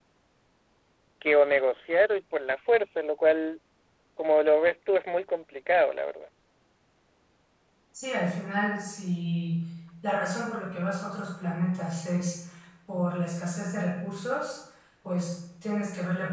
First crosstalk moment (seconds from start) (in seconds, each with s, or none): none